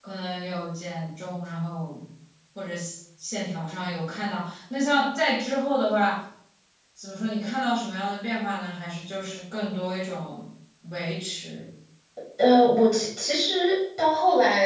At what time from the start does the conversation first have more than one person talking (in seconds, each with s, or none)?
none